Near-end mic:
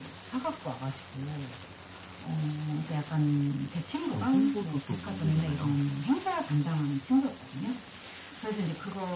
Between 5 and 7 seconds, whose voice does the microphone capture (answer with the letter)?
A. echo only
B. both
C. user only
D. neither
B